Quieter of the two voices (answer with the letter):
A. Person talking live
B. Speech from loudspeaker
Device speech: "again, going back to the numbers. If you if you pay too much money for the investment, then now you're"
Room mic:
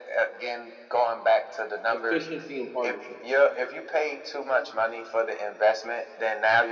A